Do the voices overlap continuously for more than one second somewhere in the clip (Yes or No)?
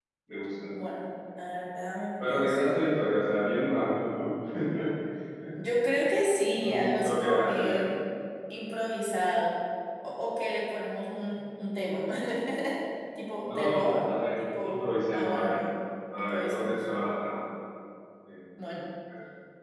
Yes